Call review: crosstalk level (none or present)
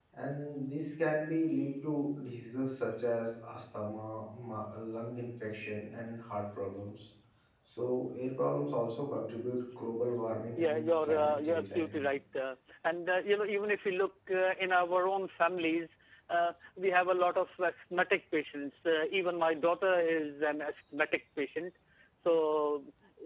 present